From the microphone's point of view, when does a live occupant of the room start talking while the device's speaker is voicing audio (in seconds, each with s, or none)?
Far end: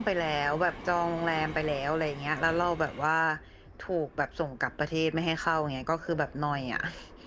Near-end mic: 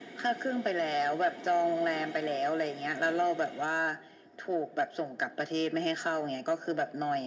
none